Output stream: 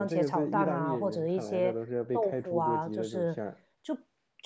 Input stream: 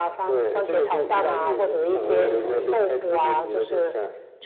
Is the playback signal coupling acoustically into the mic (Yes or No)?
Yes